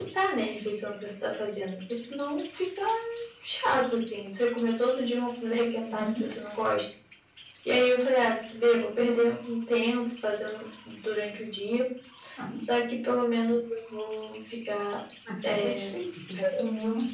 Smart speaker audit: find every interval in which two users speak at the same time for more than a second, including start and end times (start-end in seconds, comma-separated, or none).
none